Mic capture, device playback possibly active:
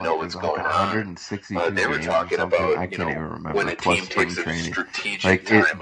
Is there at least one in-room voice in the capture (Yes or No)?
Yes